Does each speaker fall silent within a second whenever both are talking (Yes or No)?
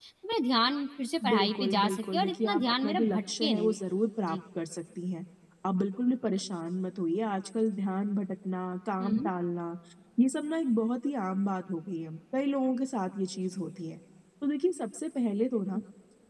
No